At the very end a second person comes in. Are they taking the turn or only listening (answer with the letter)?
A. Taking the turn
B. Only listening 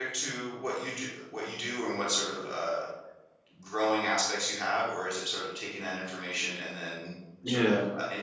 B